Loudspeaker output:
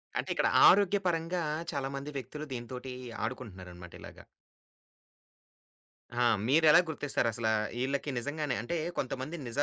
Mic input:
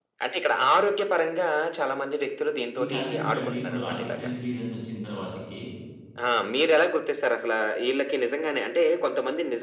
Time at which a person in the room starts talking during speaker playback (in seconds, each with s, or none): 2.8 s